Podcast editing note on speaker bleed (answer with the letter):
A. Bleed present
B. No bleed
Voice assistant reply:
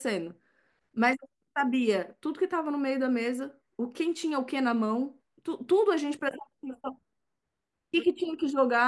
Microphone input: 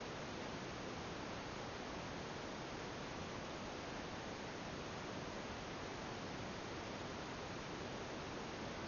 B